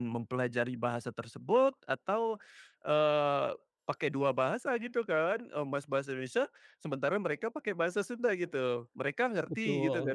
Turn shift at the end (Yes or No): Yes